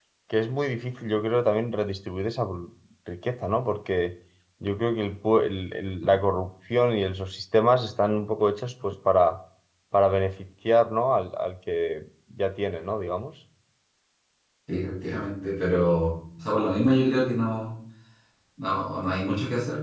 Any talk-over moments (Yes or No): No